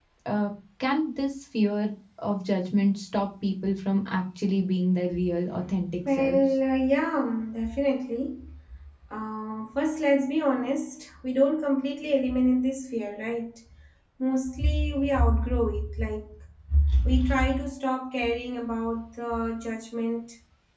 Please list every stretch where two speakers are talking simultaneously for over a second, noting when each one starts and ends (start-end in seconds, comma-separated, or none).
none